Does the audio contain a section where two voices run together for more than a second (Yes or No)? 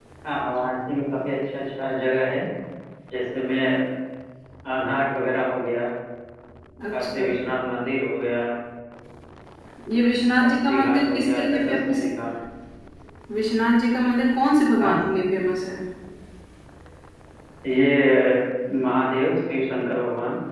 Yes